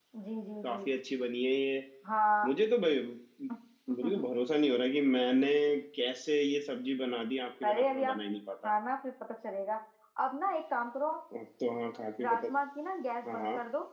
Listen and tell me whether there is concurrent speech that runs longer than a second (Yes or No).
No